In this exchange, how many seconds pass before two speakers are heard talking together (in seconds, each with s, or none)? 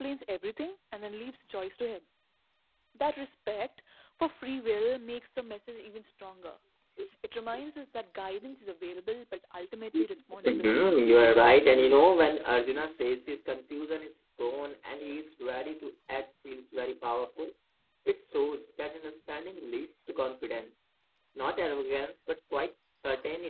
10.5 s